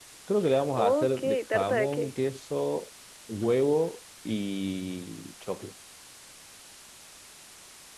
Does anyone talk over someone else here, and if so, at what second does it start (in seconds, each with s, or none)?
0.7 s